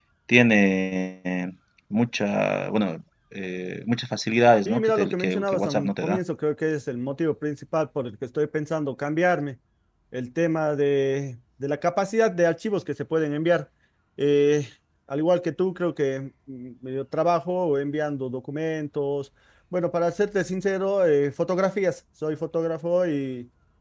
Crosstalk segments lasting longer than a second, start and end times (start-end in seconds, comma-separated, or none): 4.7-6.2